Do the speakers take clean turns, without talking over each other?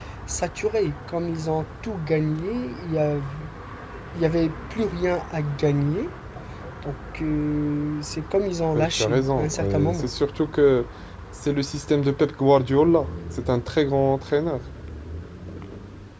No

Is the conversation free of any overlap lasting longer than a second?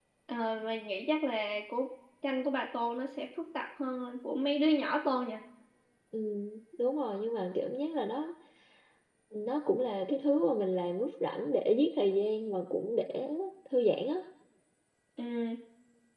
Yes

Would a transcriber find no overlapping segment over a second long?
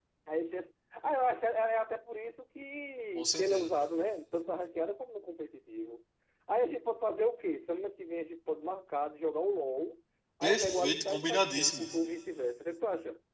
No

